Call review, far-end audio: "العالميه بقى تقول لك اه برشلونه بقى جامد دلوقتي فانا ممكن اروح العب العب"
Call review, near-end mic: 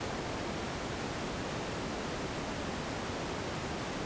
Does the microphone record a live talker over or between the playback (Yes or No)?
No